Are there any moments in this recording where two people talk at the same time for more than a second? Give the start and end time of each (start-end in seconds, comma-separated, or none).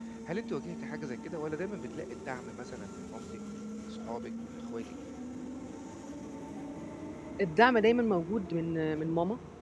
none